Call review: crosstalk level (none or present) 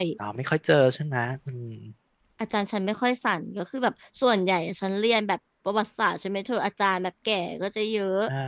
none